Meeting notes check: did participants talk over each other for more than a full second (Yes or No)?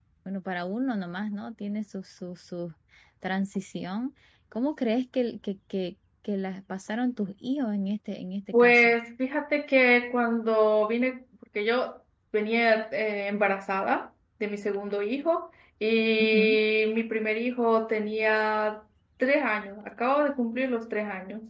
No